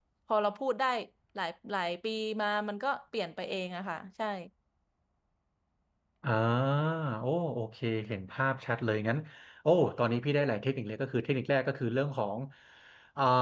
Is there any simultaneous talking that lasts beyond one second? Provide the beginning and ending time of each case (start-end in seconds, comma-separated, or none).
none